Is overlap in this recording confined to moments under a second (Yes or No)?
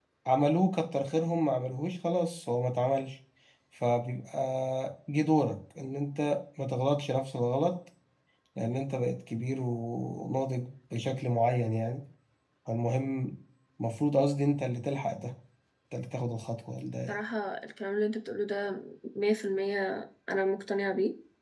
Yes